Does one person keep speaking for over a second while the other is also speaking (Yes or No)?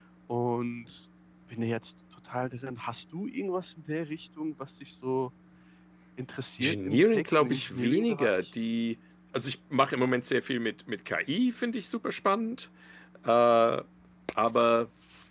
Yes